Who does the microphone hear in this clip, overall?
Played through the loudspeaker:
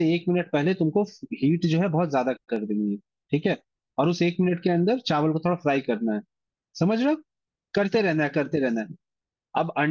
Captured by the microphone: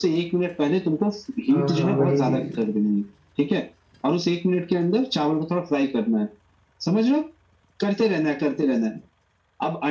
both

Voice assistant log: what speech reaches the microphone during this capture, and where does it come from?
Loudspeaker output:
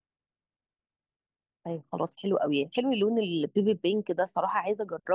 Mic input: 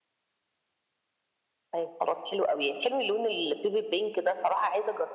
echo only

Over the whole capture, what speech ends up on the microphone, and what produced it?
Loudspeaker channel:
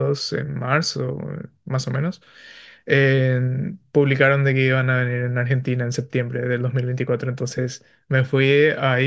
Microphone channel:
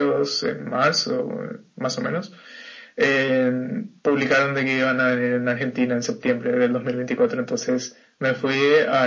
echo only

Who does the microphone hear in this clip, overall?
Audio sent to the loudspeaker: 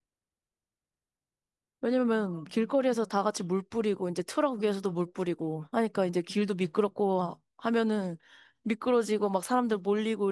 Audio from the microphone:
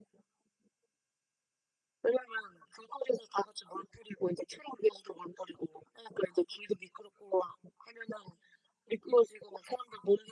echo only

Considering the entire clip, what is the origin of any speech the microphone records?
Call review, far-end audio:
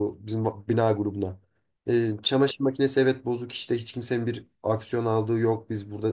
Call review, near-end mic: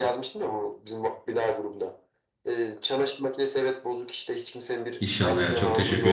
both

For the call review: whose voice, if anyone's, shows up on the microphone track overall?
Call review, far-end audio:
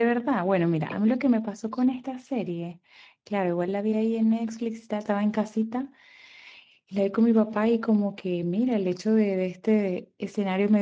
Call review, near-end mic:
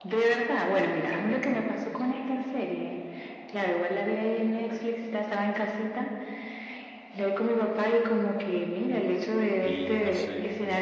both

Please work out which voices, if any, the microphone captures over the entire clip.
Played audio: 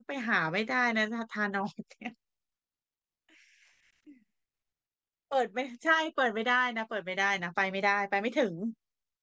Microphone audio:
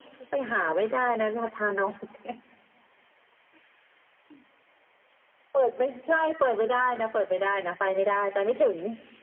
echo only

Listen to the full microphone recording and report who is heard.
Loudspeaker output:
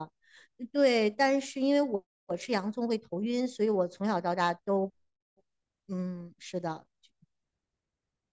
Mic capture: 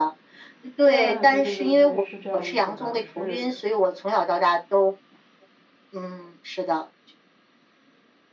both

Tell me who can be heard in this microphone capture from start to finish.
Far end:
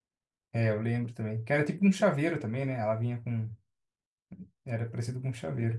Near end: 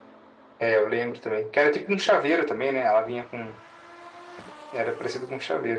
echo only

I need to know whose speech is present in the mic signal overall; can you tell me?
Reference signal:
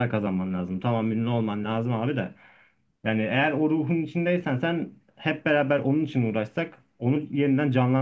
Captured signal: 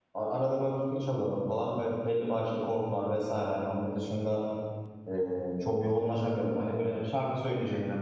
user only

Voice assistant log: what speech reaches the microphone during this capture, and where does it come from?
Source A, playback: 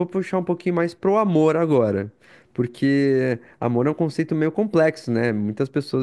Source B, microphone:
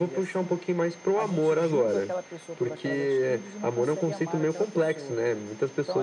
both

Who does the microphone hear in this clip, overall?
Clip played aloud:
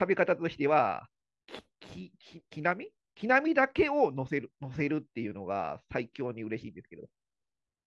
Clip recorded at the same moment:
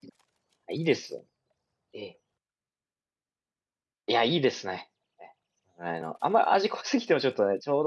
user only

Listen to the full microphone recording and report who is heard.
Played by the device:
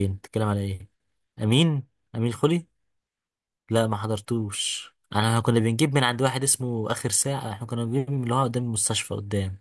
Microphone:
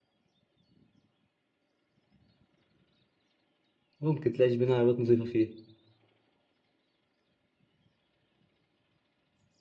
user only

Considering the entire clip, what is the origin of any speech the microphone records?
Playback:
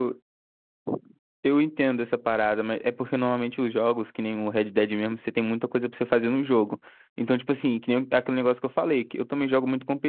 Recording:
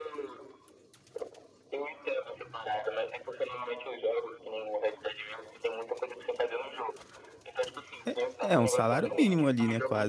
both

